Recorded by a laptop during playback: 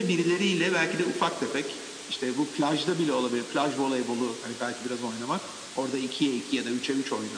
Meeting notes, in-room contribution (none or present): none